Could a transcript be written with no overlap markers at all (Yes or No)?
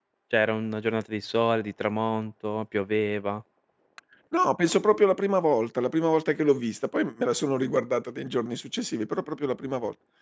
Yes